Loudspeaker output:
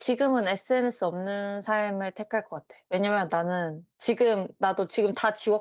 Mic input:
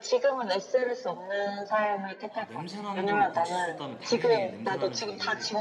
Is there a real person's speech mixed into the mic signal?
Yes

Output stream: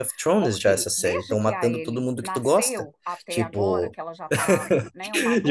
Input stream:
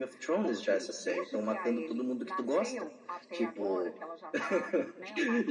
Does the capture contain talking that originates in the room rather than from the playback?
No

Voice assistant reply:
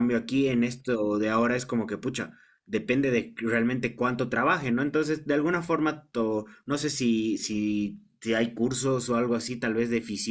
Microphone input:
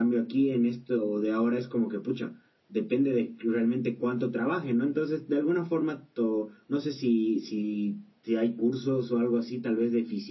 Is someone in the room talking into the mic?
No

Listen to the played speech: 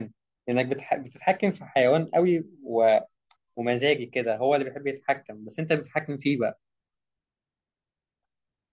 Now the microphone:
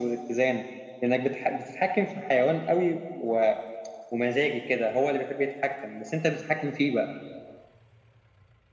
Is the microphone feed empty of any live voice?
Yes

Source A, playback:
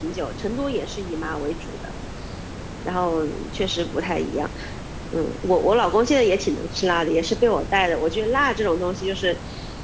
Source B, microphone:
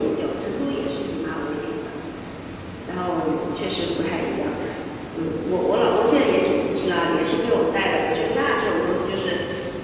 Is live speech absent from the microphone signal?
Yes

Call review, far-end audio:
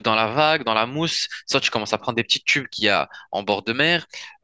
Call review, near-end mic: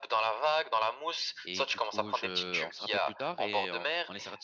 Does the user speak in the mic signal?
Yes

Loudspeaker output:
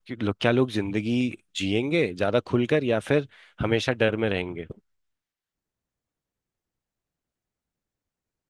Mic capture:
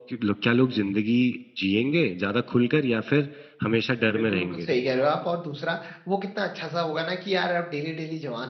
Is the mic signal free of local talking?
No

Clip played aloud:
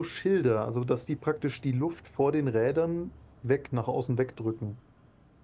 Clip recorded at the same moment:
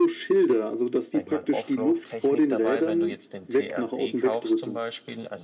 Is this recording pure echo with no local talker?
No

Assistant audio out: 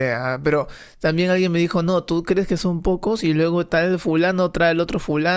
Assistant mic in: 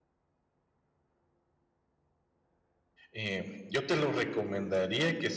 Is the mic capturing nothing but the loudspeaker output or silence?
No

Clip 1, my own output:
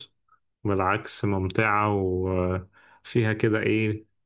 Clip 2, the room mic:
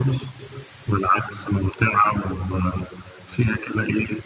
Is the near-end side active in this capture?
No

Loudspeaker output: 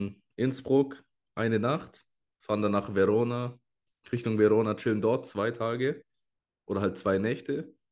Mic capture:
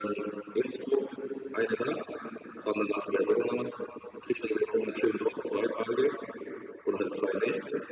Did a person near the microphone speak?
No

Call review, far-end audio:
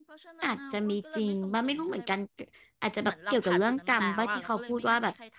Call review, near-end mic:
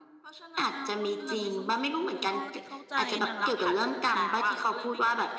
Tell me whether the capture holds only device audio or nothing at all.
No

